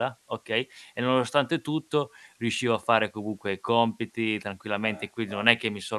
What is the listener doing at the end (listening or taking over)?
listening